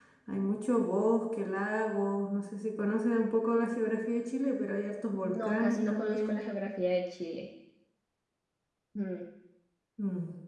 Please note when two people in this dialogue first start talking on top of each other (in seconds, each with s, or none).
5.2 s